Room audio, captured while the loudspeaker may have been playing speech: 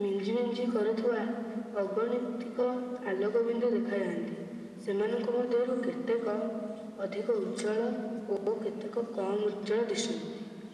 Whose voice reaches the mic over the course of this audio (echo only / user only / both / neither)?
echo only